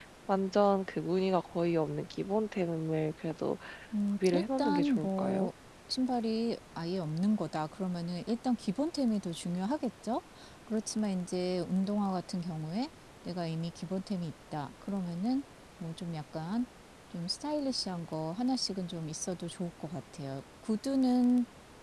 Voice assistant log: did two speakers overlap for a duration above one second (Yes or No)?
Yes